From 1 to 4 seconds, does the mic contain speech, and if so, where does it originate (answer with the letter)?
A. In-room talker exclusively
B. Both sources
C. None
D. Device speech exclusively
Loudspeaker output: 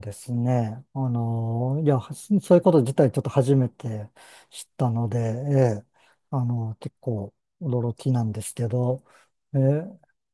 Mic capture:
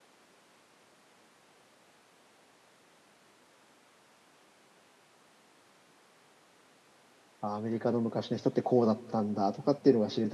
C